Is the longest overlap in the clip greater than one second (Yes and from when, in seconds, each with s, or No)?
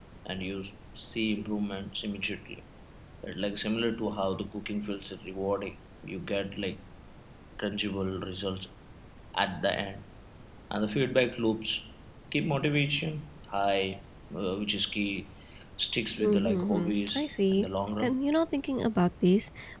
Yes, from 16.2 s